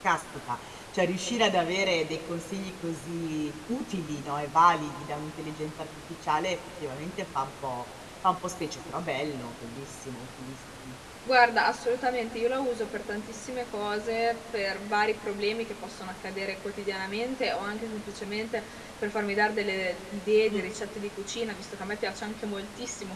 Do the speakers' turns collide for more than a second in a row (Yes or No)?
No